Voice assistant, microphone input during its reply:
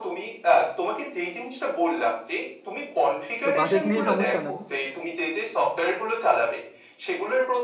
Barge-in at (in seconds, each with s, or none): 3.4 s